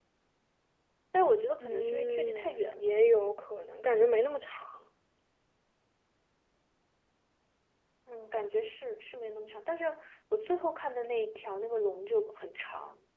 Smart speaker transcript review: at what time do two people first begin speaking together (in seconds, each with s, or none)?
1.6 s